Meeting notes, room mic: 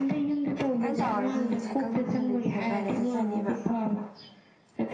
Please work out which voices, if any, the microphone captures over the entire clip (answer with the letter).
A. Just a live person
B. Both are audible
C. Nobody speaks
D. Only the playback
B